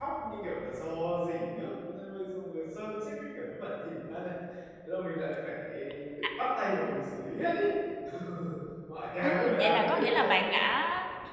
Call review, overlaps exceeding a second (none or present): present